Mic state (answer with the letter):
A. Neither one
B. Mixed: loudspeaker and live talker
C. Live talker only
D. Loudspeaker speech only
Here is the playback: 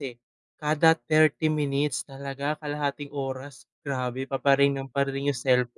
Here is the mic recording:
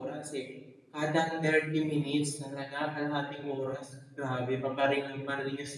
D